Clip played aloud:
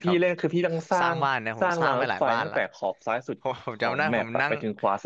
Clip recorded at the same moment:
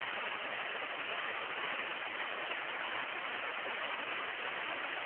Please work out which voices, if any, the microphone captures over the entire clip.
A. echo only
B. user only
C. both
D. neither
D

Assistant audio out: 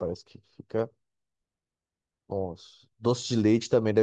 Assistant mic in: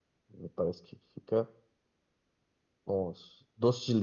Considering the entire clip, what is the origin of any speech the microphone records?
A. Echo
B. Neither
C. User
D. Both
A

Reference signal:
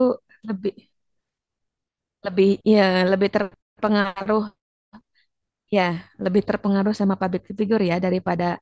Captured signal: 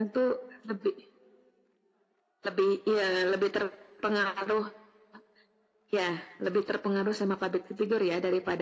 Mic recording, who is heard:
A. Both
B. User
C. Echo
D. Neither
C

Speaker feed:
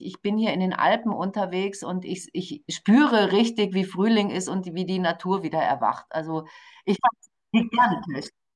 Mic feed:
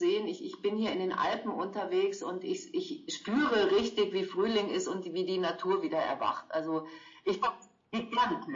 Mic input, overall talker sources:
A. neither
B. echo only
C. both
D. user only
B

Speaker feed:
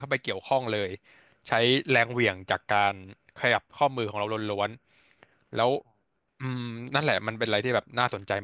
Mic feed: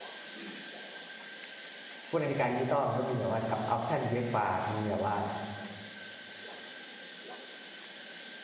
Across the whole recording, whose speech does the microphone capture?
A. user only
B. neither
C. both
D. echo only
A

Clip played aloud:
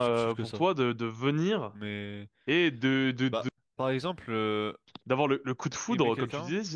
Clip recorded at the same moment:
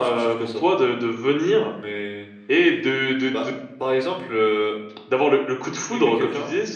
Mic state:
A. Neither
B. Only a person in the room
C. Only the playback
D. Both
C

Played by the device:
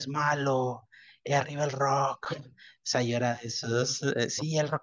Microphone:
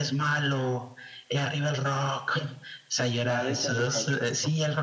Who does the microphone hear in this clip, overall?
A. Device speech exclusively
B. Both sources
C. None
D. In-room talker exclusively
B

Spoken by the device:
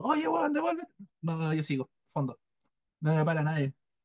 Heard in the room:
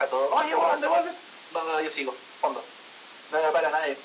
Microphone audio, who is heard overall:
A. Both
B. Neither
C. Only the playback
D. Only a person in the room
C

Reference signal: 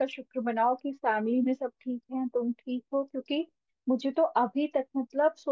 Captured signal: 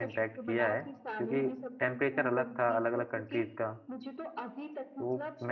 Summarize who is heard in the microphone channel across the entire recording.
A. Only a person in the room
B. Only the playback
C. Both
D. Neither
C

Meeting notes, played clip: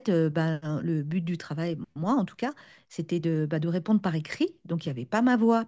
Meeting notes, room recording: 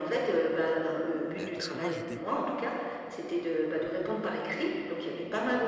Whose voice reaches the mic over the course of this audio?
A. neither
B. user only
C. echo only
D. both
D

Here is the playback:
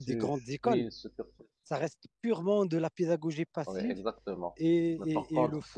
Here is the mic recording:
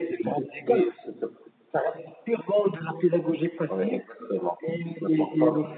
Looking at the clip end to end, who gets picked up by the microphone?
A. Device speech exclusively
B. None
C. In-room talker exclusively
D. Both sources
A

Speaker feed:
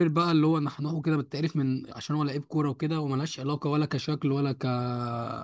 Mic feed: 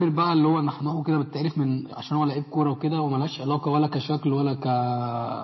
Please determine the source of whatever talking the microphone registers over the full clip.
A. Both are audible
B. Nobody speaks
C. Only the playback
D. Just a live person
C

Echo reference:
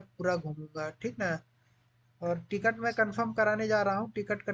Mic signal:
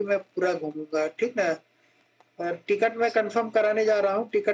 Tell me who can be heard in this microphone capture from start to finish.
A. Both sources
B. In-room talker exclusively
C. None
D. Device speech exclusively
D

